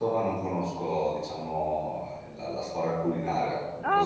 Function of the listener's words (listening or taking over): taking over